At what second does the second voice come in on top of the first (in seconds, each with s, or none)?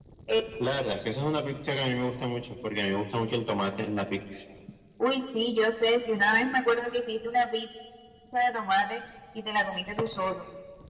none